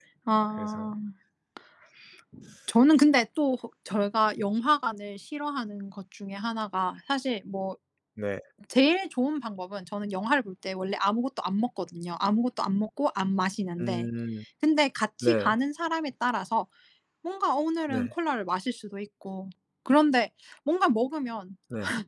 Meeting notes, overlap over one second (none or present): none